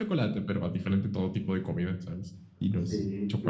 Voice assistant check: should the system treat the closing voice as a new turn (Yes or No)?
Yes